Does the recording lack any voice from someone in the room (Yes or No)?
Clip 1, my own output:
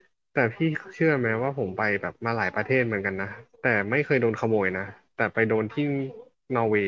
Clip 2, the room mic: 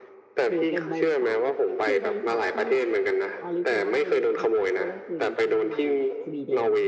No